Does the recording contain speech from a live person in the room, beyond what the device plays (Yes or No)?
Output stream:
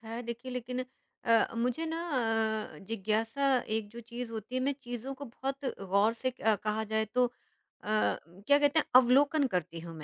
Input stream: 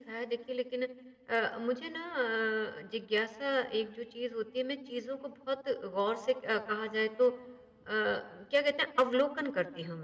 No